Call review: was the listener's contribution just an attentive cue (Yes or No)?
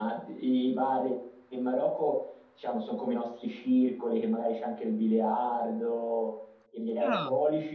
Yes